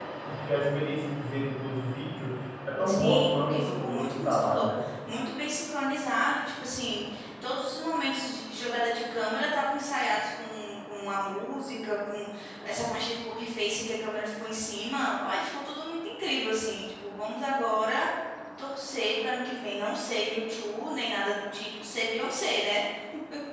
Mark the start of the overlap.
2.9 s

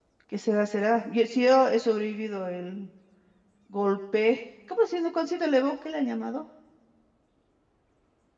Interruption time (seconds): none

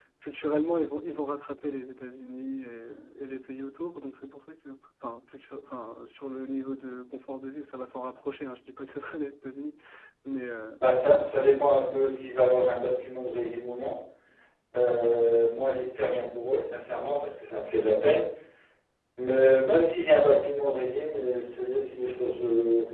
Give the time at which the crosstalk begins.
none

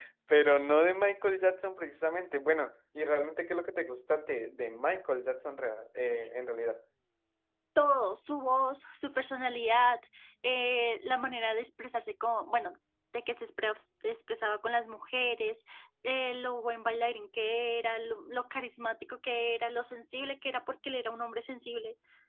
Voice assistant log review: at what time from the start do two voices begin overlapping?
none

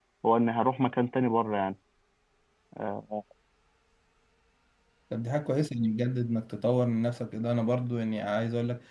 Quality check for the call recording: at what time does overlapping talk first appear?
none

